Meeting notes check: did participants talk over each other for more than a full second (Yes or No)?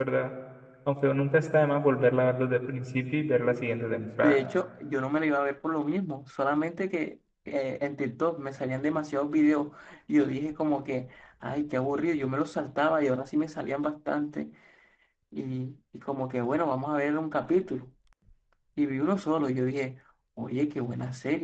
No